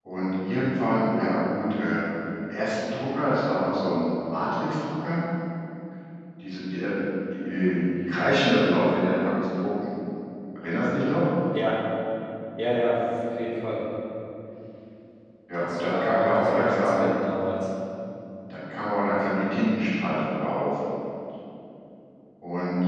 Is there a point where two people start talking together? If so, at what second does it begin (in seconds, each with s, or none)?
15.5 s